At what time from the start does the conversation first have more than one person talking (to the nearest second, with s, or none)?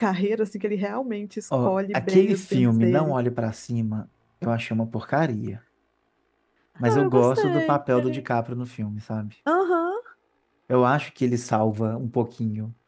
2 s